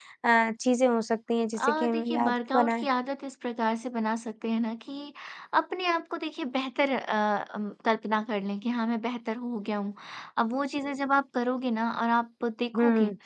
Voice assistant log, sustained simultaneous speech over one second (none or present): present